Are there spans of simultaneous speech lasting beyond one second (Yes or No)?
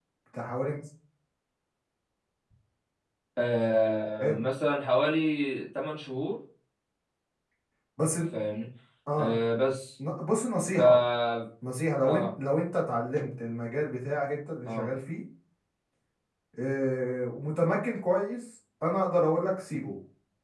No